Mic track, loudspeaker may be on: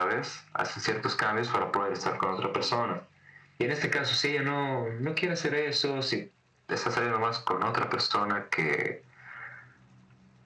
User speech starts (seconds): none

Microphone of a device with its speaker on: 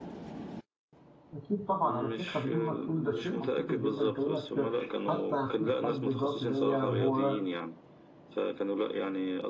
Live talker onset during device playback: 1.3 s

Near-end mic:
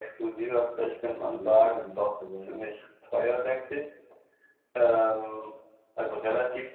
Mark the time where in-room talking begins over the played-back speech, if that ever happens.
1.2 s

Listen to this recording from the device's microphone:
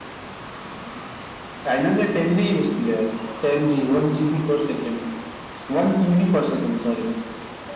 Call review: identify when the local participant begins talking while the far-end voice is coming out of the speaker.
none

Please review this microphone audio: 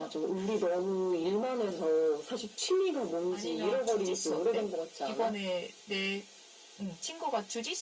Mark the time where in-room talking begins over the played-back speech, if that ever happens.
none

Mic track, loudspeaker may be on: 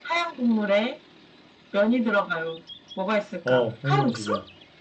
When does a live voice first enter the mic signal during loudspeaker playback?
3.4 s

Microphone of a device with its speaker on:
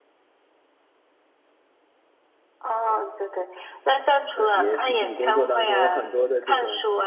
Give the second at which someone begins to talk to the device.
4.3 s

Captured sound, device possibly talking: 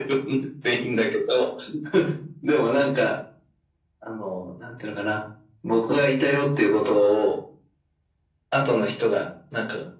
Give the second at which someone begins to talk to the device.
none

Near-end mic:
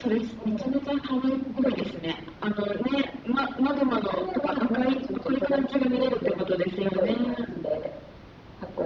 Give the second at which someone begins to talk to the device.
none

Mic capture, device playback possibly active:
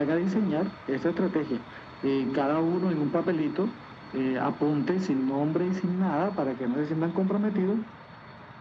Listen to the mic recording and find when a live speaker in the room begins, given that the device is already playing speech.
none

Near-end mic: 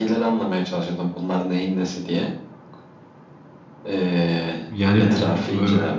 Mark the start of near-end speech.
4.7 s

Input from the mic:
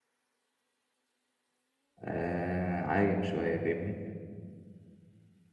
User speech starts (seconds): 2.0 s

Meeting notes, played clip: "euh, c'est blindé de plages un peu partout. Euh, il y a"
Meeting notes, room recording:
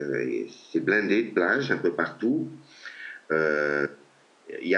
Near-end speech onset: none

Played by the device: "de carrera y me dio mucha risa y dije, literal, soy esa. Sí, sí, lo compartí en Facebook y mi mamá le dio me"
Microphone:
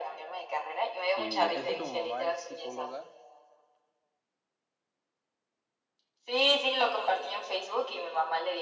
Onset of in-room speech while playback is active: 1.0 s

